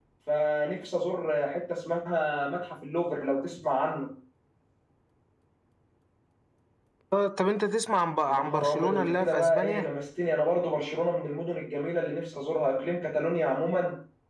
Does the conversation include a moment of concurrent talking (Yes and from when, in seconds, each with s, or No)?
Yes, from 8.3 s